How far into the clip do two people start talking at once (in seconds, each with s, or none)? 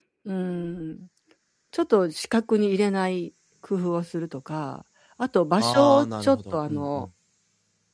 5.6 s